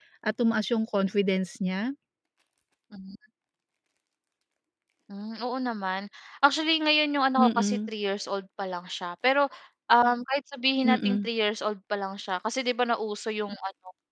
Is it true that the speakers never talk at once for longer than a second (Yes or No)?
Yes